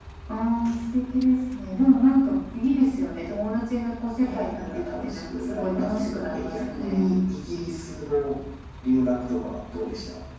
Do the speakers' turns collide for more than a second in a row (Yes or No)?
Yes